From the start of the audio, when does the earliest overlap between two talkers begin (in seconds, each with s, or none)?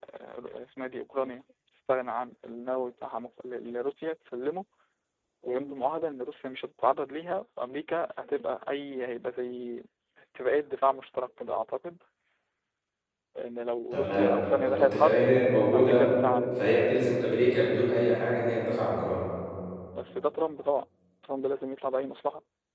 13.9 s